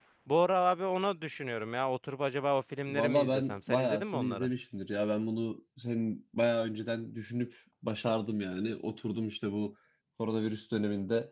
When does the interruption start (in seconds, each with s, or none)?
2.9 s